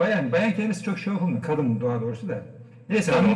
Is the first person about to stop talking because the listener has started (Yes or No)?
No